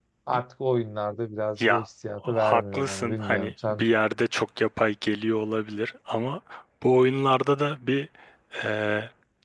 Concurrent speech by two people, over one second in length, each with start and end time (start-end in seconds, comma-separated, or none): 2.3-3.8